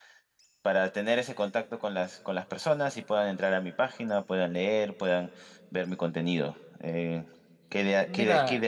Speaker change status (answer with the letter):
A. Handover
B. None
B